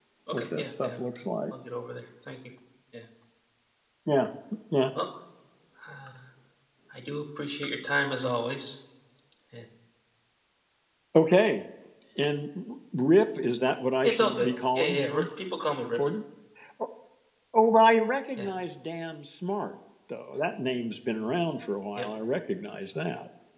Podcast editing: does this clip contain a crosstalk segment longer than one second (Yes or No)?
Yes